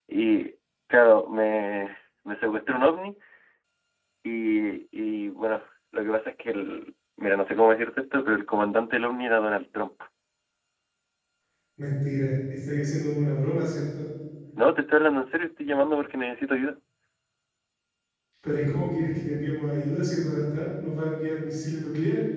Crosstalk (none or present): none